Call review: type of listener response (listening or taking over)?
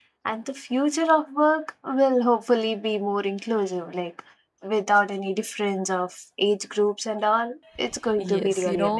taking over